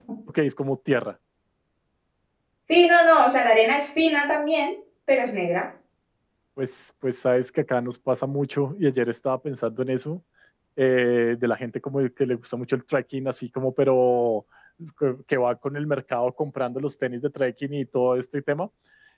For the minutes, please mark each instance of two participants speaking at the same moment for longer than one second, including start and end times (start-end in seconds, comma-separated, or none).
none